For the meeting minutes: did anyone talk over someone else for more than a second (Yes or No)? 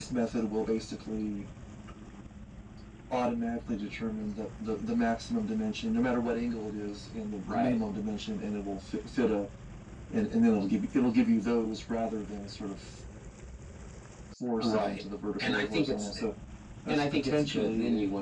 Yes